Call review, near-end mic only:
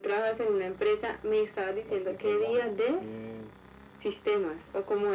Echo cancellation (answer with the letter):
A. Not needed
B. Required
B